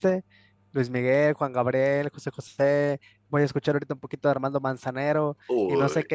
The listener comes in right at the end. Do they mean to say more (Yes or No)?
No